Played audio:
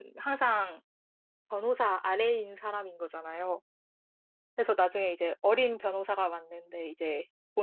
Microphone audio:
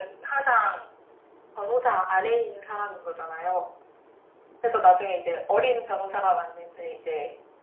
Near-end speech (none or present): none